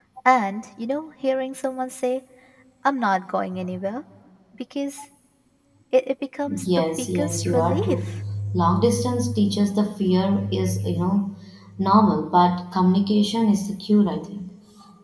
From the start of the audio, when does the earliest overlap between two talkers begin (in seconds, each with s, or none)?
6.6 s